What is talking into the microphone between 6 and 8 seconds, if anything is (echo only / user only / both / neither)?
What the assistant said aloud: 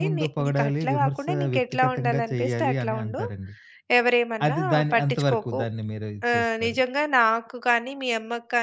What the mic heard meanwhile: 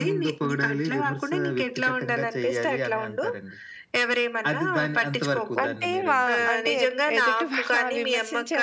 both